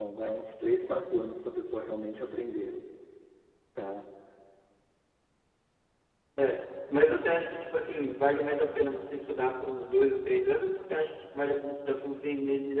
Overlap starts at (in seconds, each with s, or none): none